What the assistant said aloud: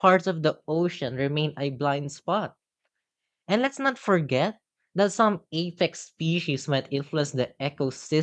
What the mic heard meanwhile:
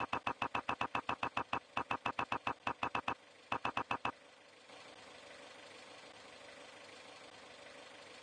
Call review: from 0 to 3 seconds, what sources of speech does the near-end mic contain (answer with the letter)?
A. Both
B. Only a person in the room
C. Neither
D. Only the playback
C